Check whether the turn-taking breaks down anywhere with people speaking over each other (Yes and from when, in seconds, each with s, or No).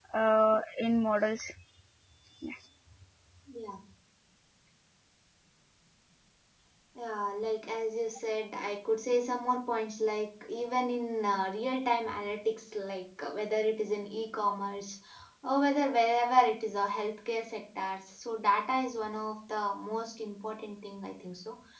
No